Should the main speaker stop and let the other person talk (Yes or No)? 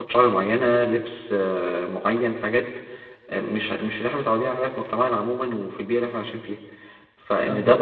No